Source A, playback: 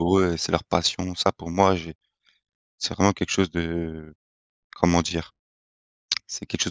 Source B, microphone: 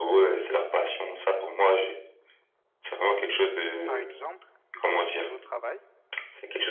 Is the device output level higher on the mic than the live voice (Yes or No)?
Yes